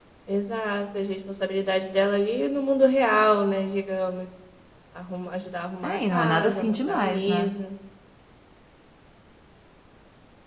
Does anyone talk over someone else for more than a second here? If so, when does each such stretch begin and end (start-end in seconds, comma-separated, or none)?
5.8-7.5